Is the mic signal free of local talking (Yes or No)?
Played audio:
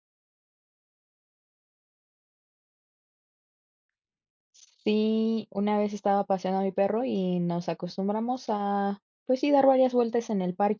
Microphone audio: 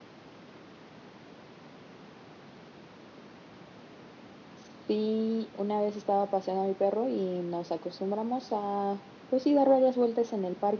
Yes